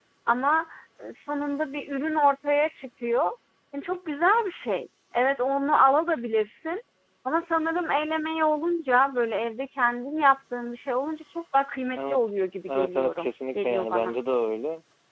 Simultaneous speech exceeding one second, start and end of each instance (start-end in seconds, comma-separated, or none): 12.7-14.2